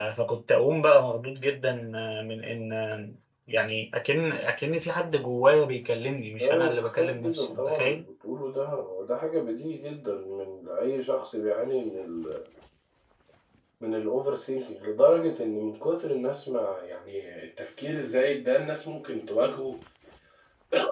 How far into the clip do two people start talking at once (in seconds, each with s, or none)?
6.4 s